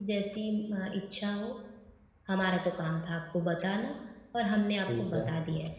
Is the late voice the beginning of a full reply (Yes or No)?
No